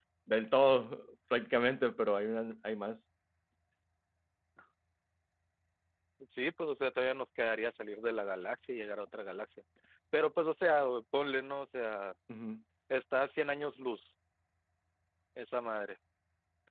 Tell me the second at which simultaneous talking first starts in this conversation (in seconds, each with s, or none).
none